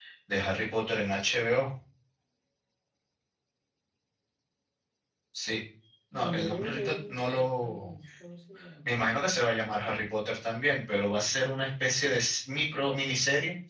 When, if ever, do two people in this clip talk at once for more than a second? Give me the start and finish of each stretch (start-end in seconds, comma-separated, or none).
6.3-7.9